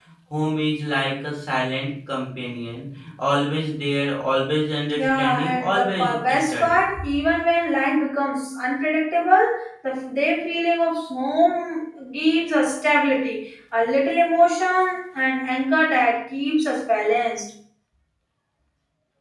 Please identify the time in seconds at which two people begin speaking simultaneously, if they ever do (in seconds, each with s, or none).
5.0 s